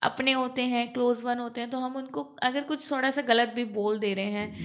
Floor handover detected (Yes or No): No